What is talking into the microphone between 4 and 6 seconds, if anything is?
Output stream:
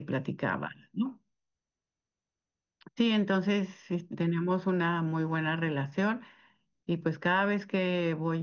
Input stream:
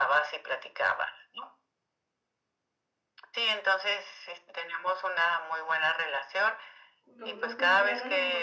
echo only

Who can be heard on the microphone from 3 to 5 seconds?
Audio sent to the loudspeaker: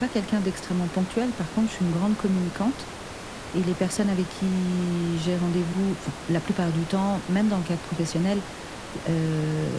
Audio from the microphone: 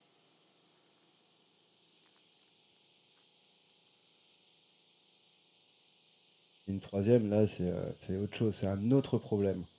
neither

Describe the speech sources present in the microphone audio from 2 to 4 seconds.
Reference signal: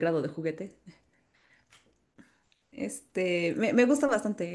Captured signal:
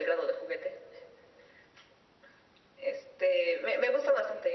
echo only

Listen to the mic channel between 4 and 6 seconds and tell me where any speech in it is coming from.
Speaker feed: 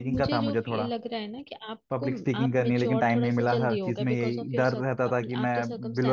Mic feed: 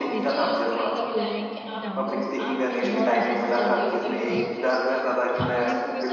both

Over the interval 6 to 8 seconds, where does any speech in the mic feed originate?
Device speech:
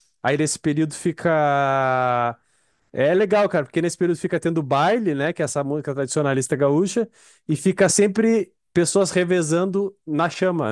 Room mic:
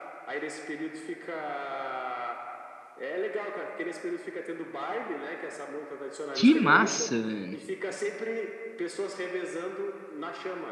both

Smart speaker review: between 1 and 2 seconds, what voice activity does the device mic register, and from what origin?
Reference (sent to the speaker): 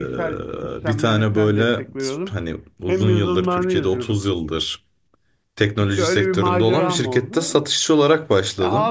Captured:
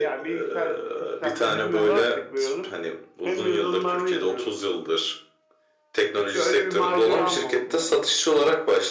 both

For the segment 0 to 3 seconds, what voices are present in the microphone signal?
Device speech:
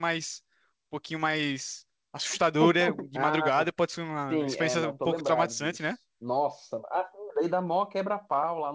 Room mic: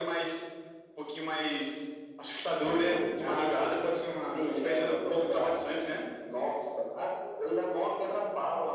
echo only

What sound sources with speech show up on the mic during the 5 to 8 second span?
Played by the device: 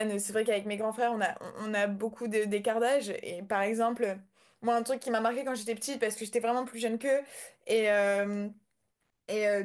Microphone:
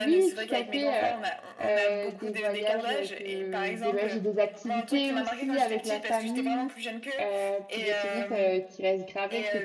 both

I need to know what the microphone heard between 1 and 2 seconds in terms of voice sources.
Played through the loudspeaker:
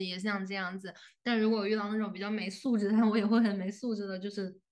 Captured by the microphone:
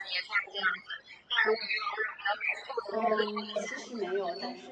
echo only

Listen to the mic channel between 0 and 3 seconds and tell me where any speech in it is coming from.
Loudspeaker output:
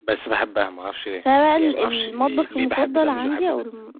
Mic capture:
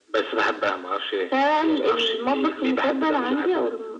echo only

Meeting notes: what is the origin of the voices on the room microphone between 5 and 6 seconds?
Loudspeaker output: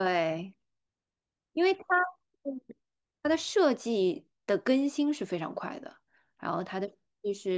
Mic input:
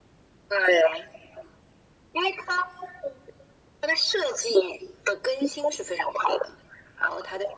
echo only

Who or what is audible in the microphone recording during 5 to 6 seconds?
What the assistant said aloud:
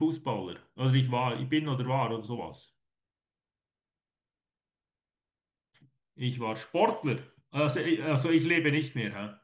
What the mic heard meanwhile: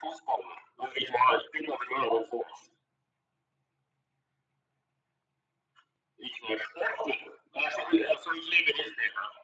neither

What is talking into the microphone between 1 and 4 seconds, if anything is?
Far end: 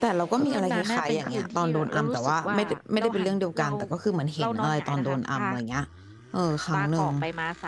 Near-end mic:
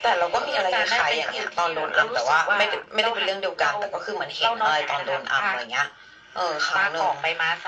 echo only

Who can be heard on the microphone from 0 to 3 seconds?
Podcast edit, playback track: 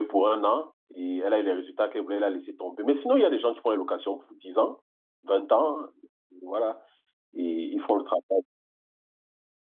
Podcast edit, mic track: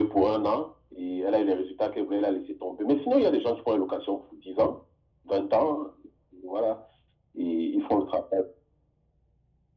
echo only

